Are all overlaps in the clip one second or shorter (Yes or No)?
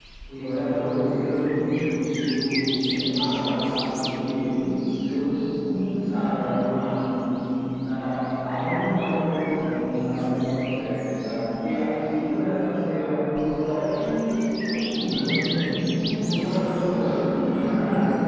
No